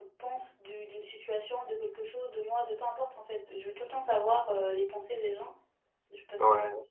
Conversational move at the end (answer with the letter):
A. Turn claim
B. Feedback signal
B